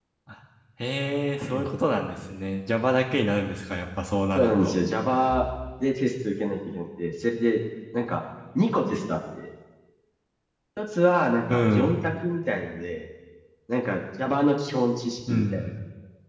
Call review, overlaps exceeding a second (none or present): none